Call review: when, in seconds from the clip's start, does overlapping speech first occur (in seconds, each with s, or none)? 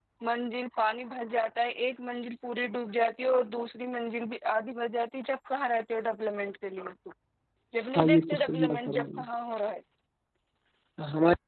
8.0 s